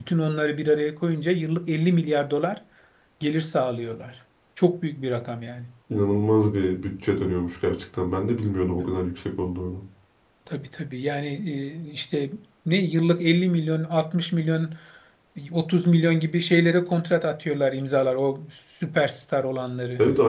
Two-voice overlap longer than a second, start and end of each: none

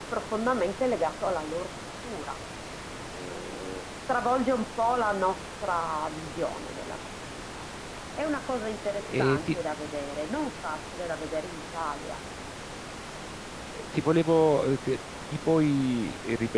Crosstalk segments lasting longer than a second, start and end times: none

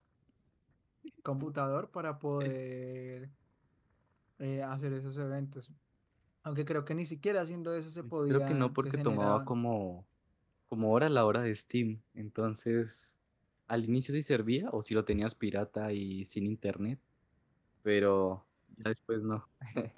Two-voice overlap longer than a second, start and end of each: 8.3-9.6

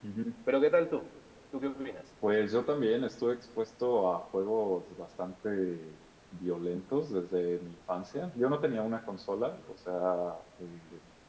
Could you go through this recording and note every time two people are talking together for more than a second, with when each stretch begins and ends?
none

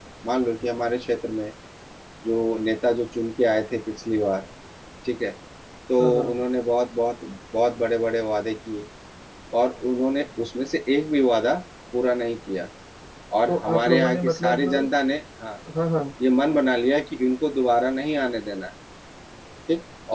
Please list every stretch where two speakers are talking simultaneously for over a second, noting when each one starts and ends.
13.5-14.7

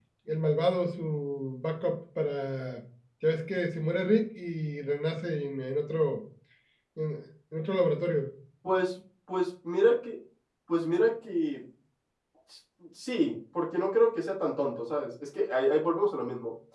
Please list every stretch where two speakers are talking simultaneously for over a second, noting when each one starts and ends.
none

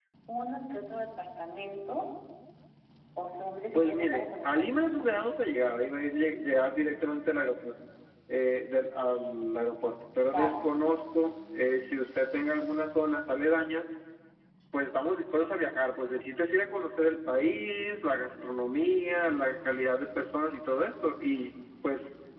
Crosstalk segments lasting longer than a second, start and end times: 3.7-5.1

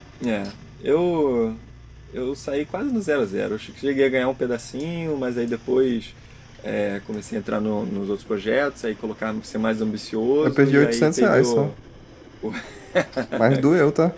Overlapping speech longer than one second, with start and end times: 10.4-11.7

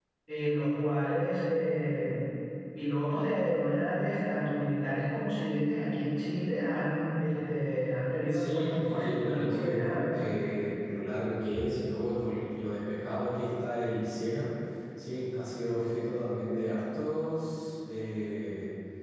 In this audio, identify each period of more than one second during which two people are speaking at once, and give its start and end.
8.3-10.2

